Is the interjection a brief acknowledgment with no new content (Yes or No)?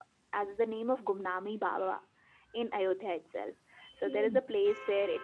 Yes